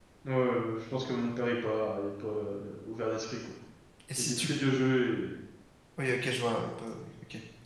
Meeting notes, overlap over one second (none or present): none